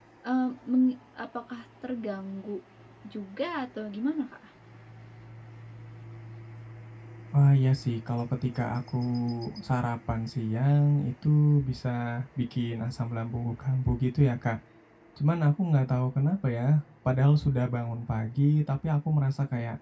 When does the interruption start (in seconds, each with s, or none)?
none